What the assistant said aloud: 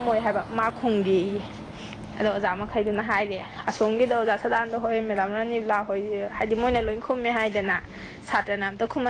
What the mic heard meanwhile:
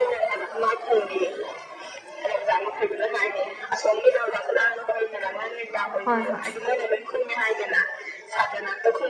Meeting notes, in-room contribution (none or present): present